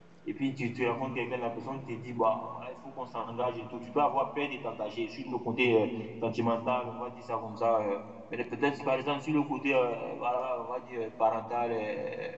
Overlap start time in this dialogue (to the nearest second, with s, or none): none